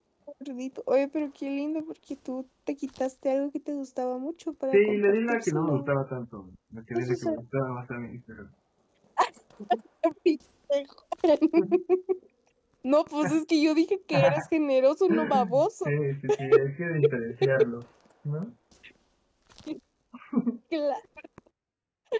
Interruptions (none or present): present